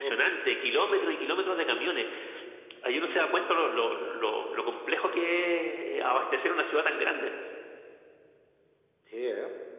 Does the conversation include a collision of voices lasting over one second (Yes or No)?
No